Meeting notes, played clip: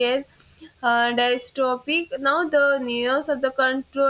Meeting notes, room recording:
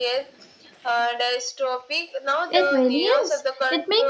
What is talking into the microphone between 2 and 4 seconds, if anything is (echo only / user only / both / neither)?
both